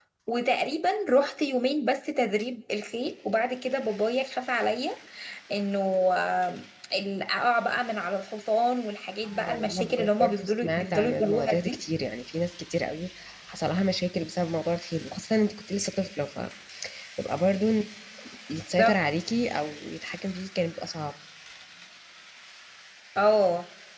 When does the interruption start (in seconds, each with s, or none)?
9.2 s